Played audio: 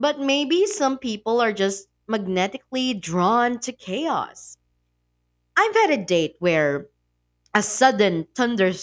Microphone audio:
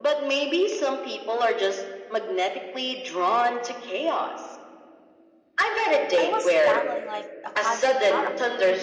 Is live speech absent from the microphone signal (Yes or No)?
No